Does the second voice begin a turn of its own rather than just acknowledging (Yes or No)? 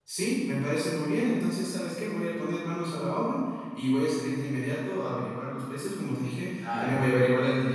No